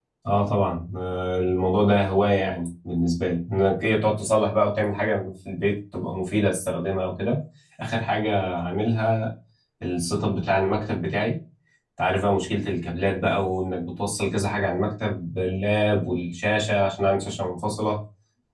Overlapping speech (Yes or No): No